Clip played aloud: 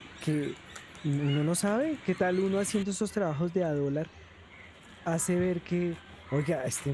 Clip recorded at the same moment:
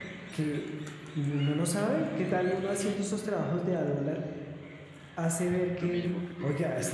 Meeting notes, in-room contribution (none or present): present